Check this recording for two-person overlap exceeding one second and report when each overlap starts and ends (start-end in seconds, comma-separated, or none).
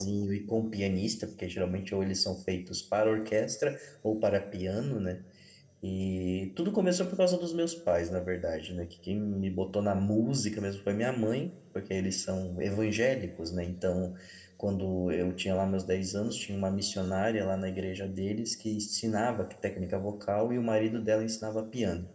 none